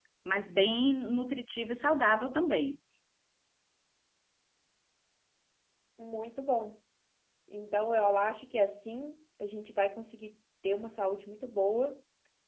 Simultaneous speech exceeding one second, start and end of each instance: none

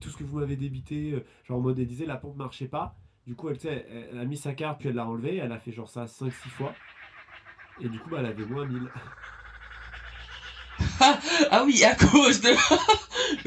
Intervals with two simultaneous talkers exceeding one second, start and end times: none

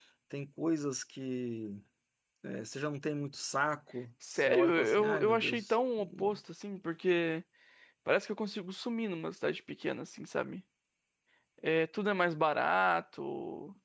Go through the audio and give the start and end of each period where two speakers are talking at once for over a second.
4.4-6.4

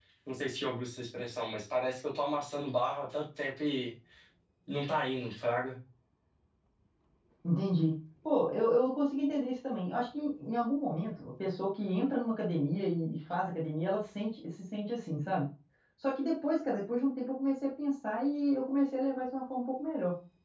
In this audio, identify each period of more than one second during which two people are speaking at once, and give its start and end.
none

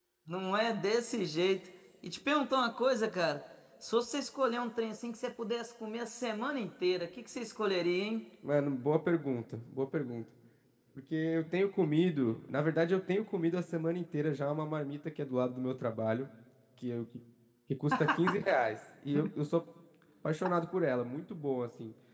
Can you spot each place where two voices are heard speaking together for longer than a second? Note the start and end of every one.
none

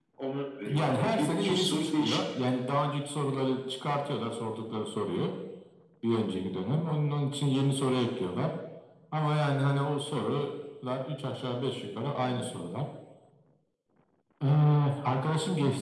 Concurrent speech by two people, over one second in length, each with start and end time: 0.6-2.2

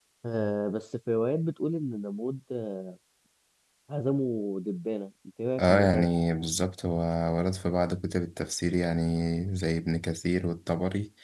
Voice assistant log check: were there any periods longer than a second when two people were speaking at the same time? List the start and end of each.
none

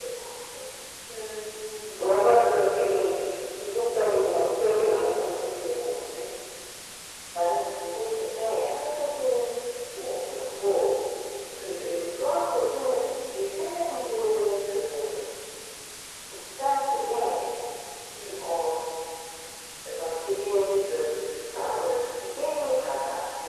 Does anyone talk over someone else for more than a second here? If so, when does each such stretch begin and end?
none

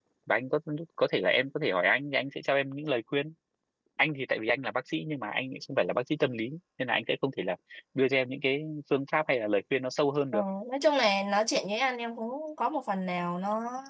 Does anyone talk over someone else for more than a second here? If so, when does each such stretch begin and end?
none

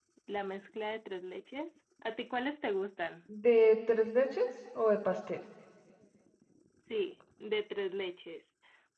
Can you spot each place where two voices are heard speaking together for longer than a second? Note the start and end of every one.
none

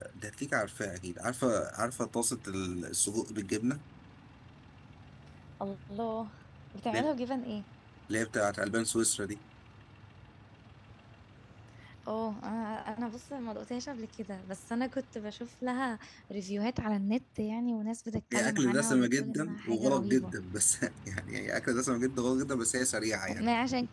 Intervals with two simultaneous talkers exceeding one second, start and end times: 18.3-20.3

